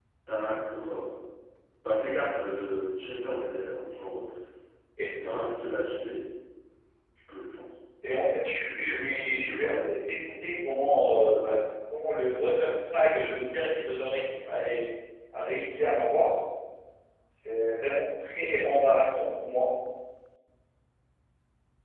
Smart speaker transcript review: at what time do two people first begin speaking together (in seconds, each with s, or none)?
8.2 s